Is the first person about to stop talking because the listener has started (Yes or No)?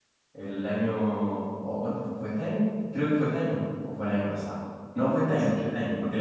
No